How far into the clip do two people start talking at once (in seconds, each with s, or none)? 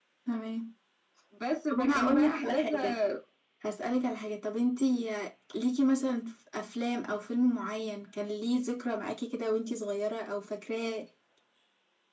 1.7 s